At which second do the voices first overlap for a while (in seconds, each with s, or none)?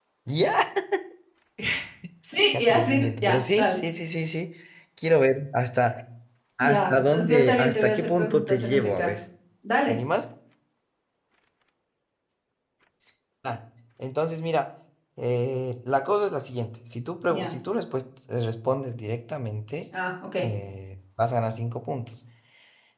2.5 s